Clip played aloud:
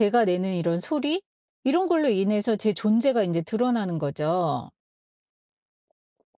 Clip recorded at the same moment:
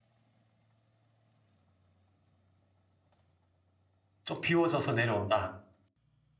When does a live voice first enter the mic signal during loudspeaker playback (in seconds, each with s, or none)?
4.2 s